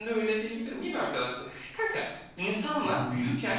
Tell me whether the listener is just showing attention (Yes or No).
Yes